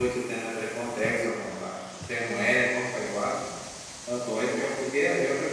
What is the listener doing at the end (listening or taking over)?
listening